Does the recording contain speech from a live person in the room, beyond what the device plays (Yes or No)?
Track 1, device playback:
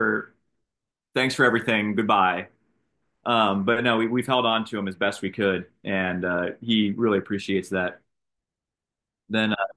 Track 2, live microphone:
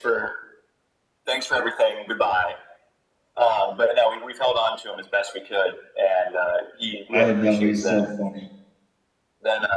Yes